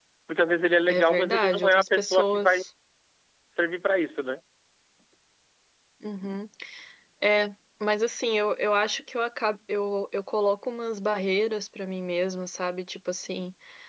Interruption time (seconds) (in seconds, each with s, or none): 0.9 s